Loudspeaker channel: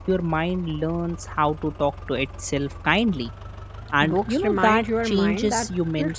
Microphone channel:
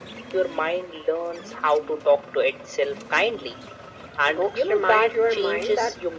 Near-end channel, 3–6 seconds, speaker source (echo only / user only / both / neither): echo only